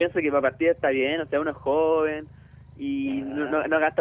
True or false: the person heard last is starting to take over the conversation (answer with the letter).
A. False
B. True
A